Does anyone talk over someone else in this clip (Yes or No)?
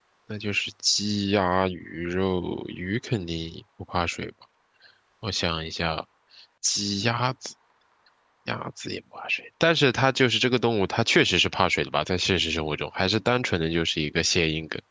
No